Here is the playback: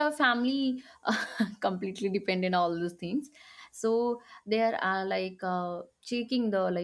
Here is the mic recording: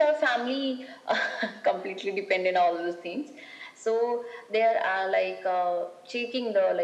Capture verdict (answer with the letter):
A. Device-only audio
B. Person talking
A